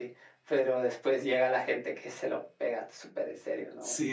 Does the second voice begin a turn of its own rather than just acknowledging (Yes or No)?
Yes